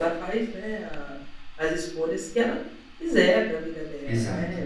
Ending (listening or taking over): listening